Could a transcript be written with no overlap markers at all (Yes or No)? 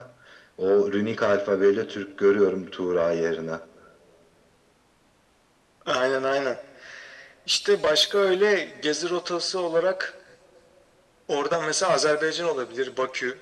Yes